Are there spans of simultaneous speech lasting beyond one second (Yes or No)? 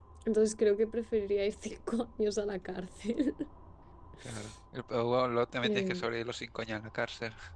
No